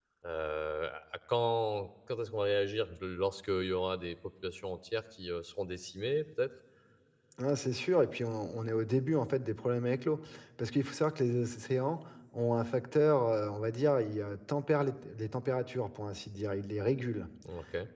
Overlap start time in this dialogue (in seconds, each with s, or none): none